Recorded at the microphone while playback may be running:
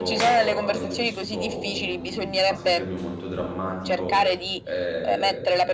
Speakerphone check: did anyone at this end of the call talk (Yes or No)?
Yes